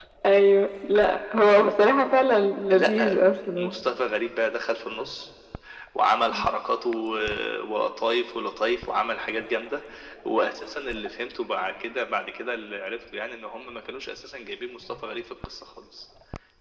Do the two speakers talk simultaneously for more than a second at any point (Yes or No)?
No